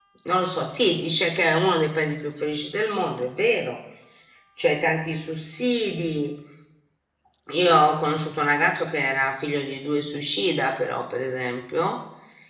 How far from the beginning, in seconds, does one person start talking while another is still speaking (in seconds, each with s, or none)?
none